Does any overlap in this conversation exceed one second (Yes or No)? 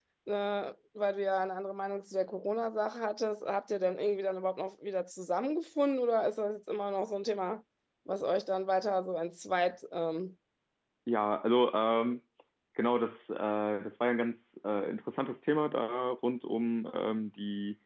No